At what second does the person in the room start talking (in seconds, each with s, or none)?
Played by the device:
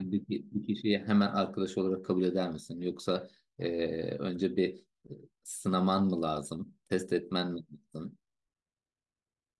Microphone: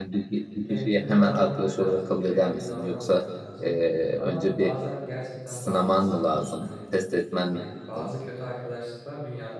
0.6 s